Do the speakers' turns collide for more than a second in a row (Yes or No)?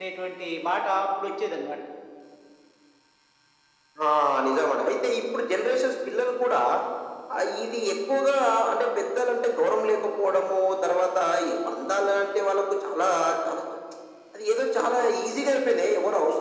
No